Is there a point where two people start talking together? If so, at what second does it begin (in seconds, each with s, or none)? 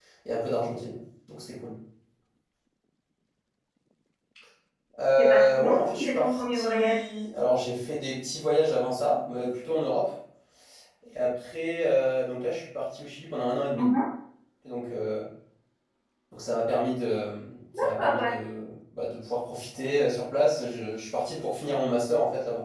5.2 s